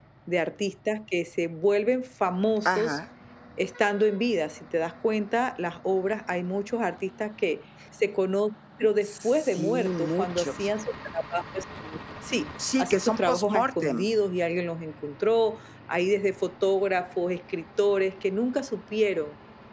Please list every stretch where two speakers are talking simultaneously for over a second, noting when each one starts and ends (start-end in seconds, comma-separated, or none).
9.1-10.7, 12.8-14.1